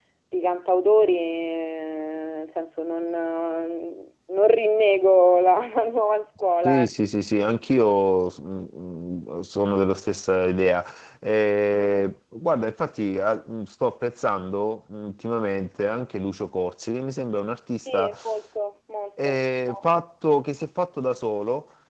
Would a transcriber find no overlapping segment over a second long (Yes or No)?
Yes